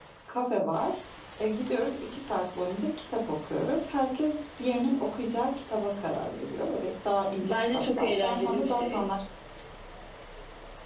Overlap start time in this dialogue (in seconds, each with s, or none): 7.4 s